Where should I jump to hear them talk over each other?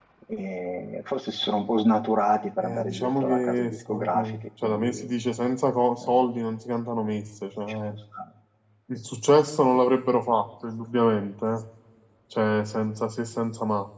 2.6 s

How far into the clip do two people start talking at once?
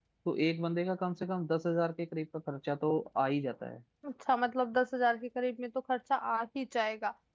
none

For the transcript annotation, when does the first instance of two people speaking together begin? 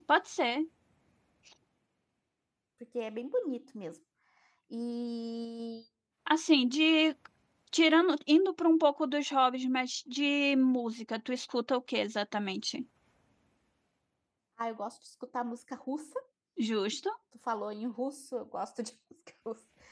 none

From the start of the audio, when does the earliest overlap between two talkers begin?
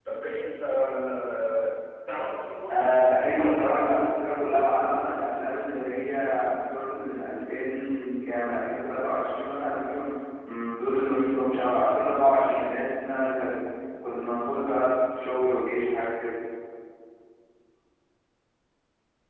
2.7 s

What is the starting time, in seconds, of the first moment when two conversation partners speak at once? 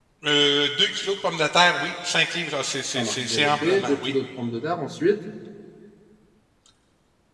2.9 s

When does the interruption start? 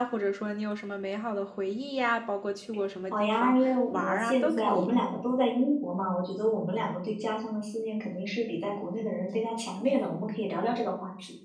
3.1 s

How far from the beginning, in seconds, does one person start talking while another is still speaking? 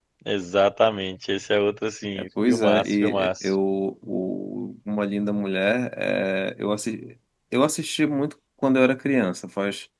2.2 s

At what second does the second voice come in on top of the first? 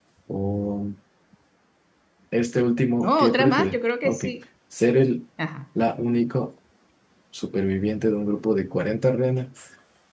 3.0 s

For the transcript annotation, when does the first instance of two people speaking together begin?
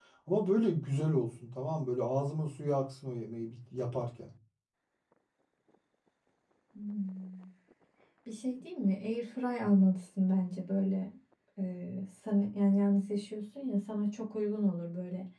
none

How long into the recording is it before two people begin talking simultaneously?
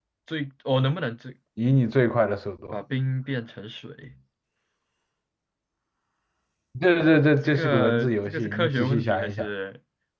7.4 s

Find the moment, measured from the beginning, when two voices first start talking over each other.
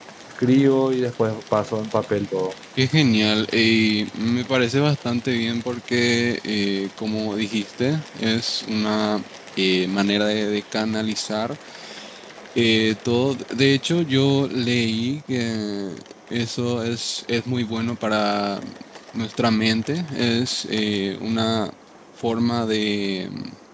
none

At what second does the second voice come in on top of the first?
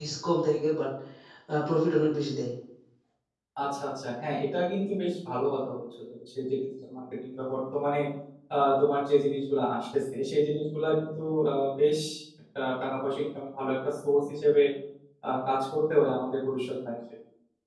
none

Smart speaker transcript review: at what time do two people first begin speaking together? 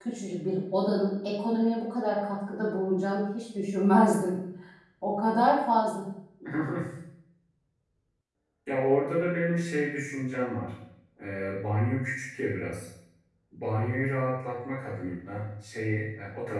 none

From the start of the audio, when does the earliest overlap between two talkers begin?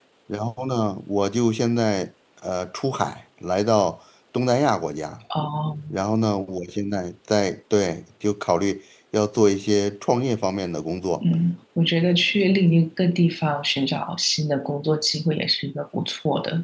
none

